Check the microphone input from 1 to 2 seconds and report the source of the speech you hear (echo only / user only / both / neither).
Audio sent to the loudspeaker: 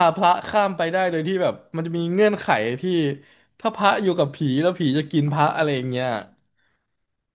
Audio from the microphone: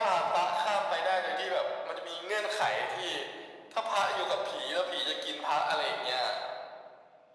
echo only